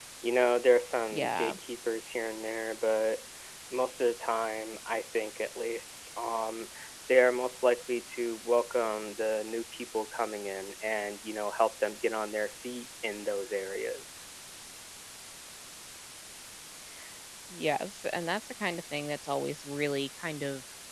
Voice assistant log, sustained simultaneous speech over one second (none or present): none